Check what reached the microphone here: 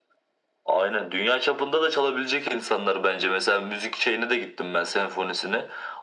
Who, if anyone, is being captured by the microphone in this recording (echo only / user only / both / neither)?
echo only